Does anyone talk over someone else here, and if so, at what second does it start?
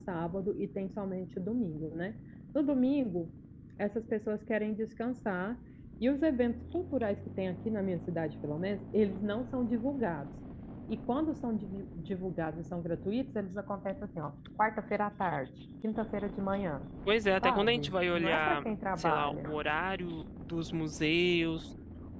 17 s

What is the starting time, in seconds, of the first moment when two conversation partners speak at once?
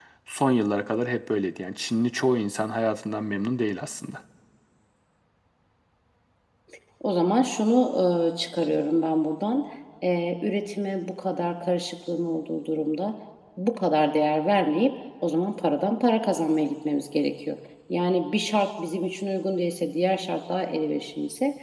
none

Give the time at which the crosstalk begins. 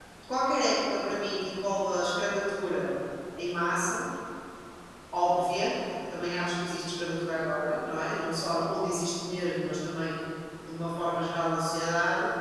none

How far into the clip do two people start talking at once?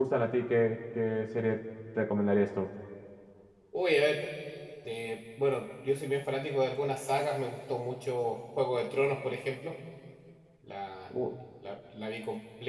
none

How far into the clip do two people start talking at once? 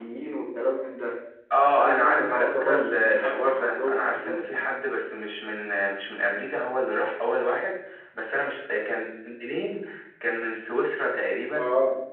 2 s

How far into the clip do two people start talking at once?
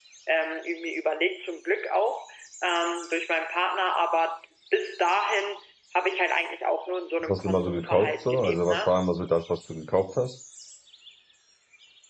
7 s

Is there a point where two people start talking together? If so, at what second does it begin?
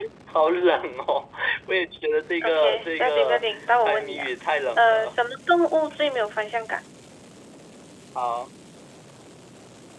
2 s

